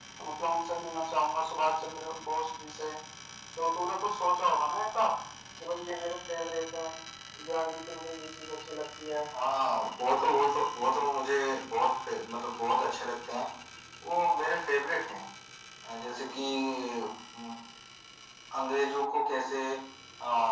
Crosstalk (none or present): none